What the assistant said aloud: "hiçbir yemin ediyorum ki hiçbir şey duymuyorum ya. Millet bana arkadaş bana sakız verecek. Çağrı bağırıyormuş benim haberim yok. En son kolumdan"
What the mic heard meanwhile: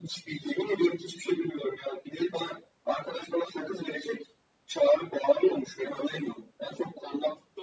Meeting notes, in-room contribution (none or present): none